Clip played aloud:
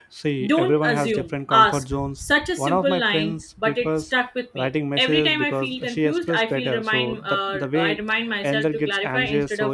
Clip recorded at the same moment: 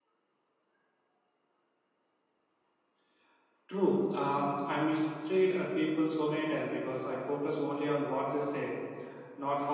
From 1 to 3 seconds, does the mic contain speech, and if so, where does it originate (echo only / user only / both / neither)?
neither